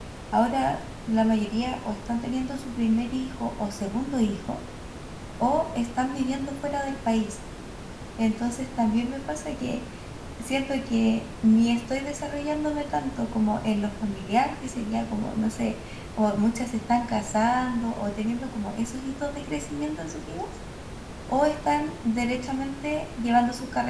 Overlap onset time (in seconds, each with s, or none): none